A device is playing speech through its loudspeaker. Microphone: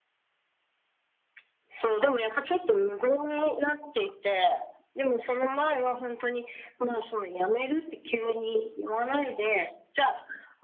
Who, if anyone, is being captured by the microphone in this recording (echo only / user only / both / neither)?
echo only